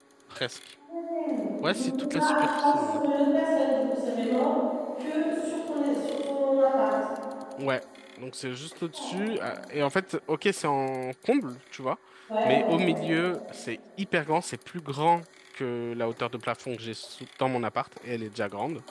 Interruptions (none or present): present